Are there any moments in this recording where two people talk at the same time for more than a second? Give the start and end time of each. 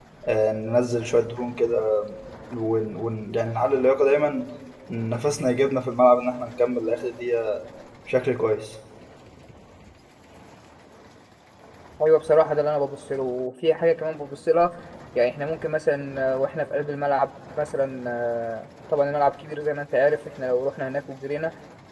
none

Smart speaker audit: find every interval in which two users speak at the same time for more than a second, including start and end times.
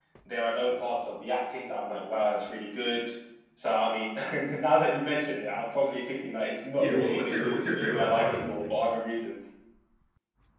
6.8-8.6

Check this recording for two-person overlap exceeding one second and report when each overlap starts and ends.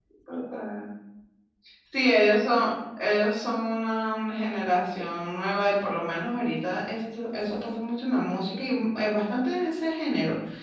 none

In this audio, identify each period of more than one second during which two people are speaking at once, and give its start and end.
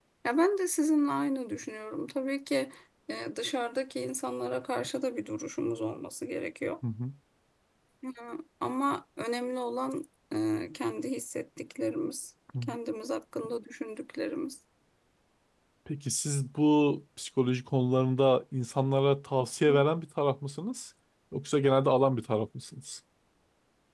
none

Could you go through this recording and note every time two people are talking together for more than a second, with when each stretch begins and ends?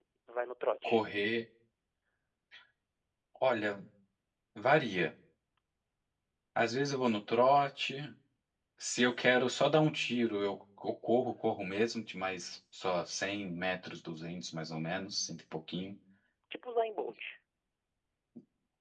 none

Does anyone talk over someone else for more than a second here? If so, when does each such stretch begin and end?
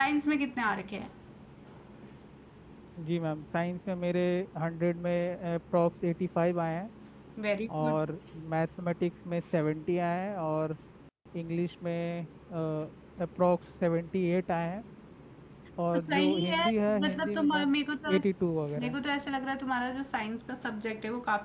15.9-17.7

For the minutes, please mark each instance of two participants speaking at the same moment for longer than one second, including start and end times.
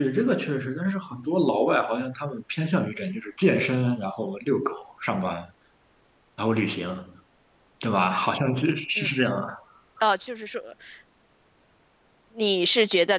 none

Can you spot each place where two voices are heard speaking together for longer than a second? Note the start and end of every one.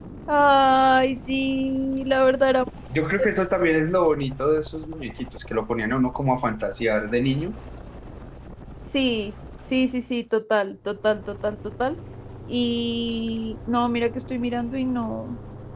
none

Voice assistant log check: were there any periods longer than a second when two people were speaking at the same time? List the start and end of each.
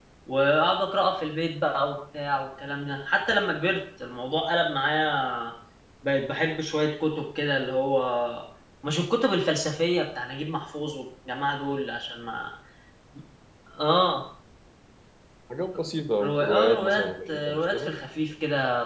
16.2-17.9

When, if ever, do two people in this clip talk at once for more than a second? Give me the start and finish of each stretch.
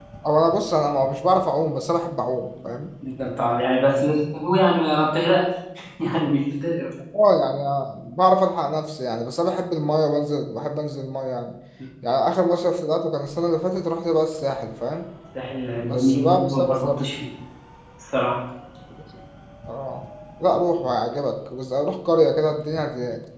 15.8-17.0

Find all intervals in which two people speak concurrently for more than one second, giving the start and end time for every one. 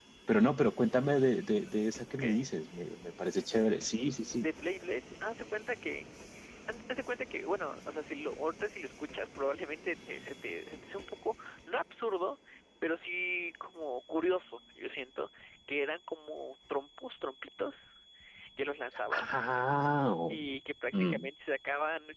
none

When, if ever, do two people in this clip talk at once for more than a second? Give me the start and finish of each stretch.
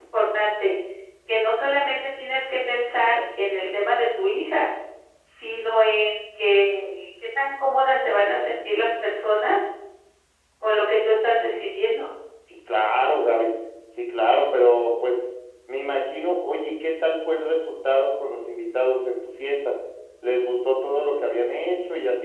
none

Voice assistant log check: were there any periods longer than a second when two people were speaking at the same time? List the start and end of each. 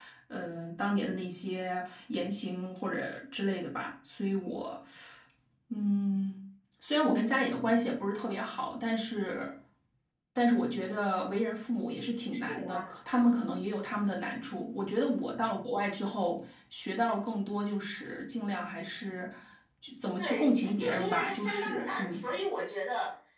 20.2-22.3

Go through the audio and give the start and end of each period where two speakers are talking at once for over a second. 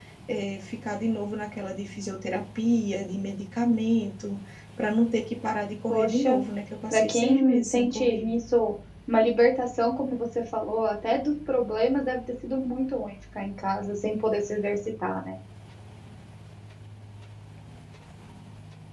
6.9-8.3

